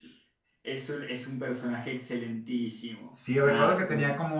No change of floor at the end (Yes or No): No